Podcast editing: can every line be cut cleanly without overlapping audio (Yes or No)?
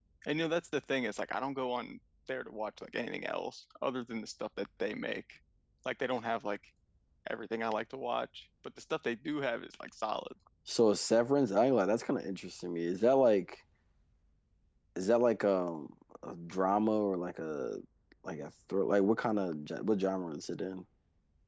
Yes